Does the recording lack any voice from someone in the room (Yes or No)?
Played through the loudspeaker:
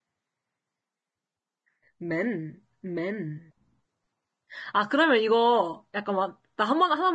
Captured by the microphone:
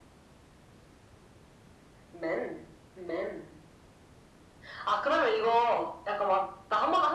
Yes